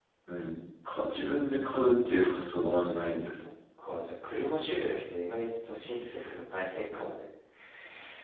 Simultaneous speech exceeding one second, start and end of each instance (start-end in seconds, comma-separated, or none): none